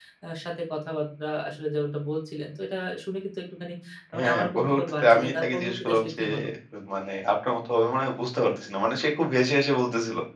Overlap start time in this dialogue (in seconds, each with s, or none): 4.2 s